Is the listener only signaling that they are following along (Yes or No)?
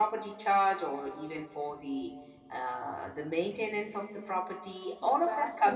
No